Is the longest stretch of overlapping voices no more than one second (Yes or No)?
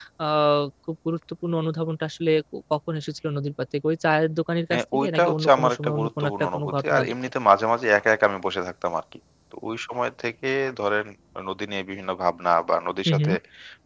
No